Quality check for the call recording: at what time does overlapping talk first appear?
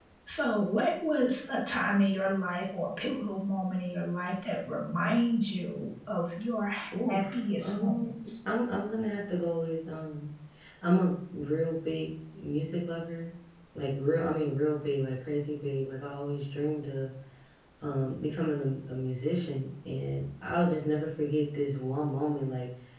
6.9 s

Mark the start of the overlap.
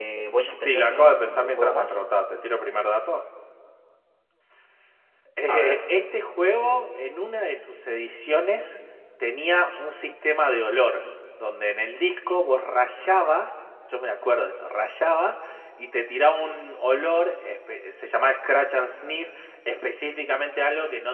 0.6 s

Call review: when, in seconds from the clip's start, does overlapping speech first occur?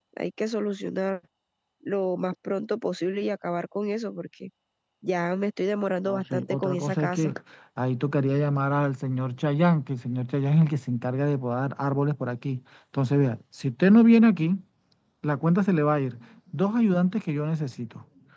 6.1 s

